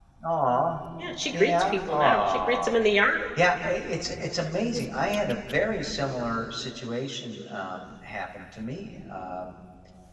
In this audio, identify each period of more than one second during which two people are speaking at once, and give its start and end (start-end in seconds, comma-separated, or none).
1.3-2.8